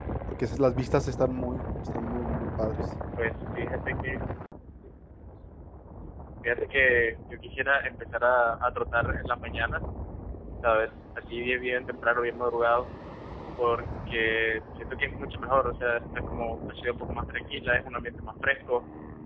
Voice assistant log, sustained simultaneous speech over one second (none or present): none